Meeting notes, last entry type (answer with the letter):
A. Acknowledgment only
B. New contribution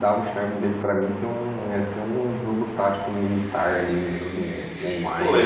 B